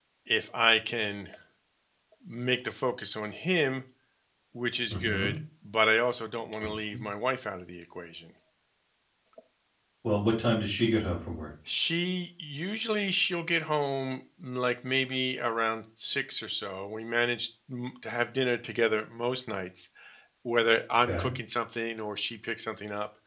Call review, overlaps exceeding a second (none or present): none